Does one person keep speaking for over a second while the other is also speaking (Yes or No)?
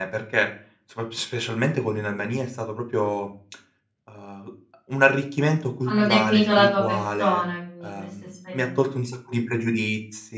Yes